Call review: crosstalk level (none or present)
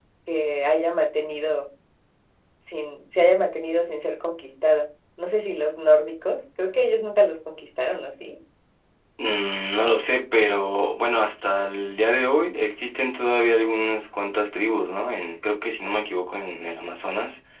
none